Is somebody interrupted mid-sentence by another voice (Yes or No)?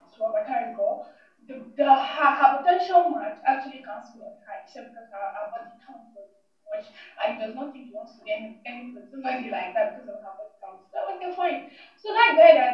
No